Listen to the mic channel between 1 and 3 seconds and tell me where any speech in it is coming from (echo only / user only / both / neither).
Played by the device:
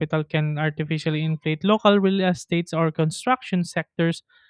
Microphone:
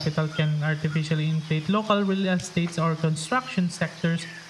echo only